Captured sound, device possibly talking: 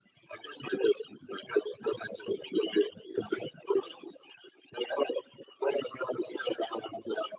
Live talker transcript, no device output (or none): none